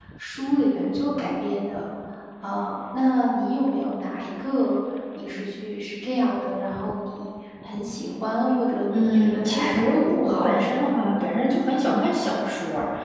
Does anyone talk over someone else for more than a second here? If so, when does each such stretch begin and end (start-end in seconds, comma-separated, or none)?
8.9-10.8